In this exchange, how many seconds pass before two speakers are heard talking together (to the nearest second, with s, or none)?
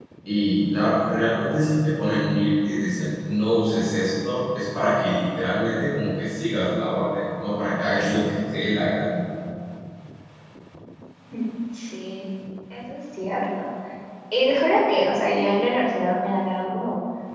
none